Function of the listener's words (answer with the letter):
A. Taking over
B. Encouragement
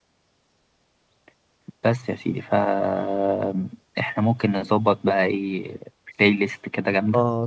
A